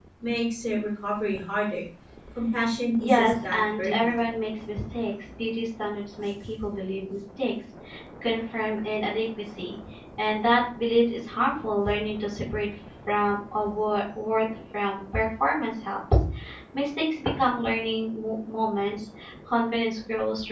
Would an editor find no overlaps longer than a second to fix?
No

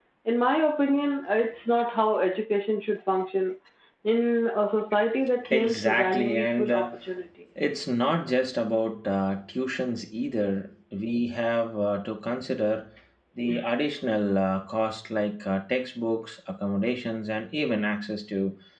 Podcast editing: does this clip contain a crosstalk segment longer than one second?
Yes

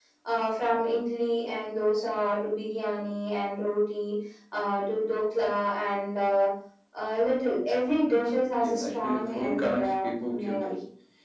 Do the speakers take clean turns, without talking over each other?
No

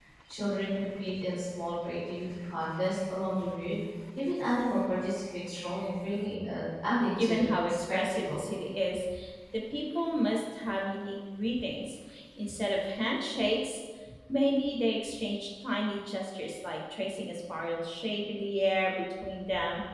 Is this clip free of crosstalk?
No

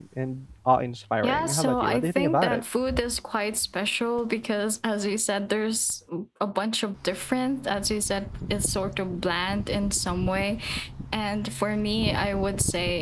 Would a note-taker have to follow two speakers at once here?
Yes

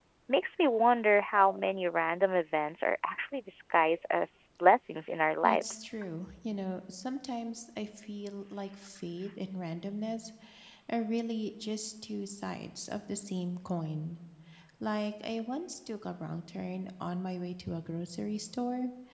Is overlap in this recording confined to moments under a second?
Yes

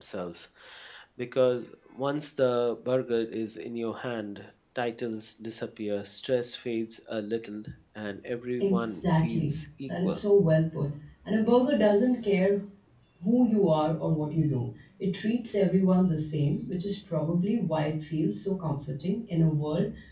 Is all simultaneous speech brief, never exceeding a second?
No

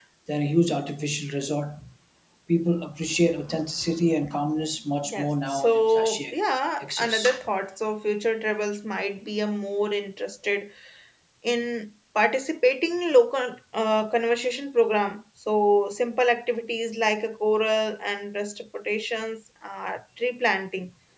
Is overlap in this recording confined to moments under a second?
No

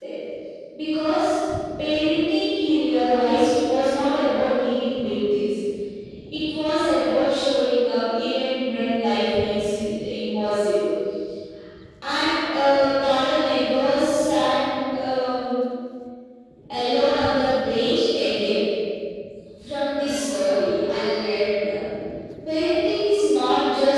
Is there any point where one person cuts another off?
No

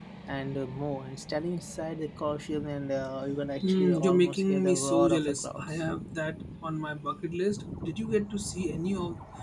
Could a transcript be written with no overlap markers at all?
No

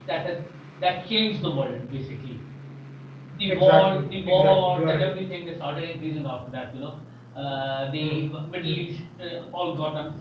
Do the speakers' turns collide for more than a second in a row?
Yes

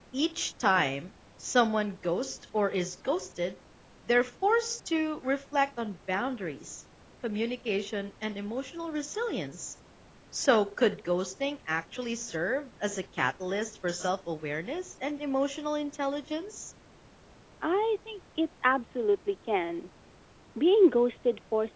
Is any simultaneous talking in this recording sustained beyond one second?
No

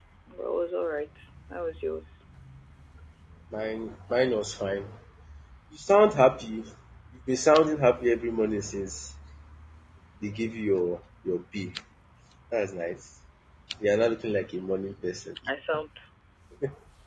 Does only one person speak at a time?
Yes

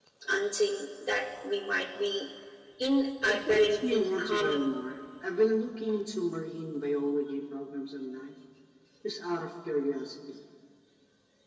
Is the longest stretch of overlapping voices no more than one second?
No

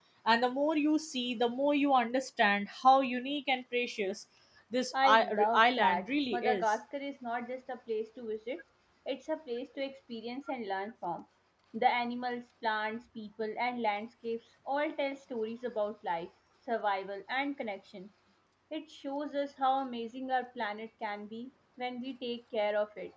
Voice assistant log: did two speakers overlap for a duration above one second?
Yes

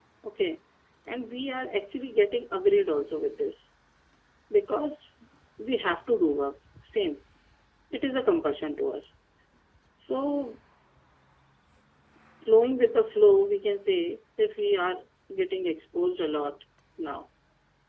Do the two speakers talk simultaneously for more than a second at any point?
No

